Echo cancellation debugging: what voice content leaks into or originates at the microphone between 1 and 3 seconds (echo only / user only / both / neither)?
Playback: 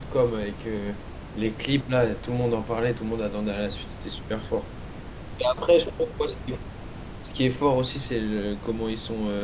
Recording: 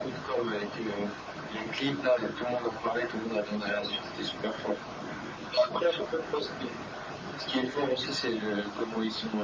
echo only